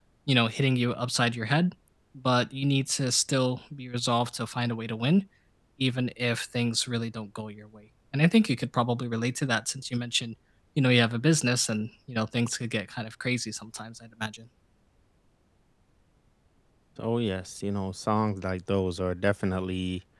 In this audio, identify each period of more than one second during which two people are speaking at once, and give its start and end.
none

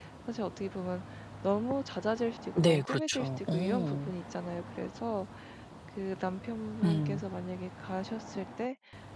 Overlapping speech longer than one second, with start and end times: 2.6-4.1

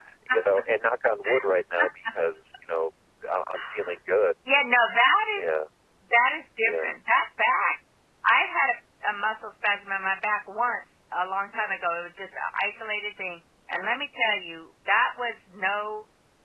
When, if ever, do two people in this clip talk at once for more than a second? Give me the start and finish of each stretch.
none

